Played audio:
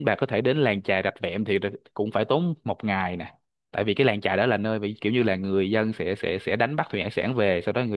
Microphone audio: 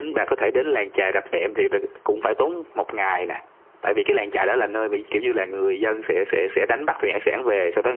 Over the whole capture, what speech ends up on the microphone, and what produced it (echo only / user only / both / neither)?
echo only